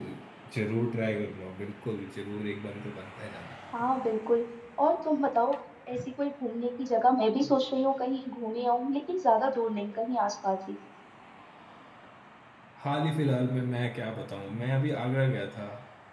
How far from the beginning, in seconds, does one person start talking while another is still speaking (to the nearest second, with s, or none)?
none